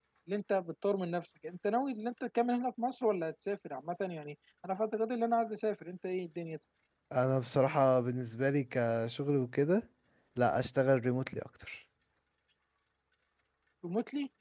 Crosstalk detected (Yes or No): No